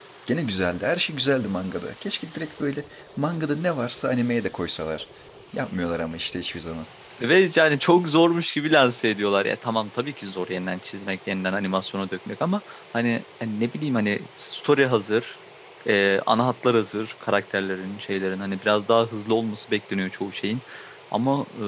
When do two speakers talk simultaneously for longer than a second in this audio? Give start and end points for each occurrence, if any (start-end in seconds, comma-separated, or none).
none